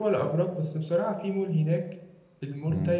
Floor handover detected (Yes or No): No